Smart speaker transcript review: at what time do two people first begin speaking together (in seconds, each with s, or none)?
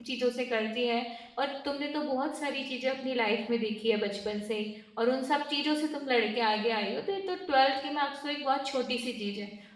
none